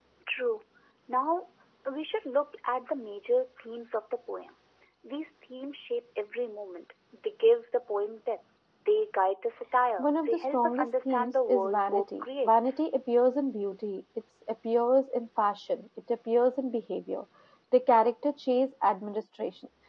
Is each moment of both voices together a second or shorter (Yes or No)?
No